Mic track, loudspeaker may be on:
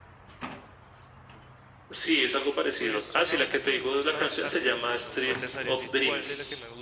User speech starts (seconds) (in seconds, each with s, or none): 2.8 s